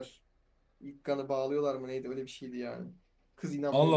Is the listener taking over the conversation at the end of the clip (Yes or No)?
Yes